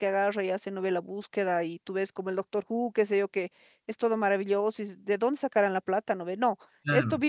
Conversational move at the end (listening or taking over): listening